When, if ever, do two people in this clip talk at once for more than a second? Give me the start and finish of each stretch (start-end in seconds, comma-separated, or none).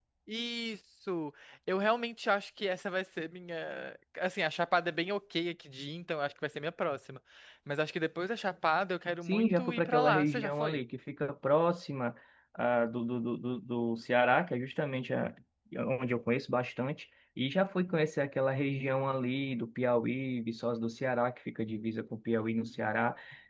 9.3-10.8